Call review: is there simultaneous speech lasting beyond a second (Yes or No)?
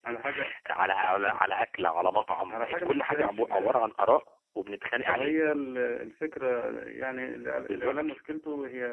Yes